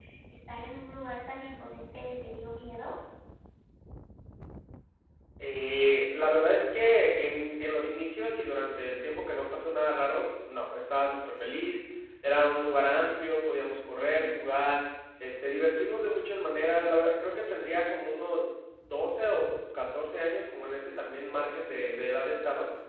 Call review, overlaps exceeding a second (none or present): none